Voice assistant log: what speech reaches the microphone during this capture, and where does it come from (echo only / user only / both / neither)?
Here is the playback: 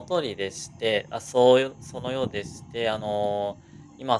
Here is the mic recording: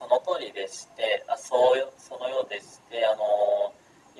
echo only